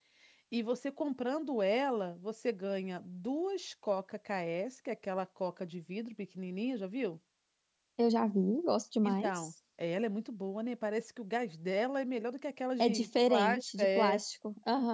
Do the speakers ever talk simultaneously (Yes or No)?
Yes